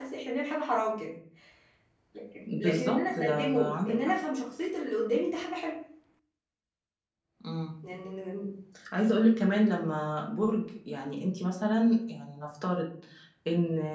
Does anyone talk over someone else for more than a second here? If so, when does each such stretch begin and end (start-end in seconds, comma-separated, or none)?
2.6-4.1